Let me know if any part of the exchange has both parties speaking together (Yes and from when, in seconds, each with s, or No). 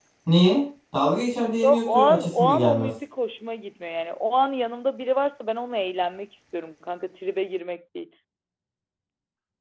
Yes, from 1.6 s